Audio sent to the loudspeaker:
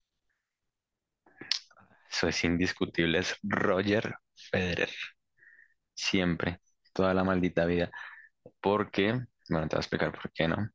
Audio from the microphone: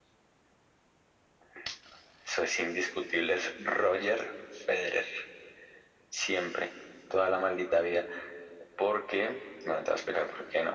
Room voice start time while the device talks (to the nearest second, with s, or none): none